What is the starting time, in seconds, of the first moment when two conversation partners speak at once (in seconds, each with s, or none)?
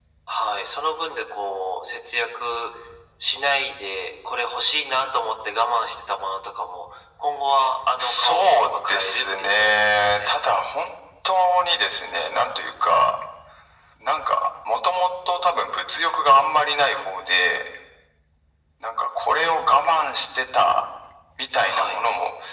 8.0 s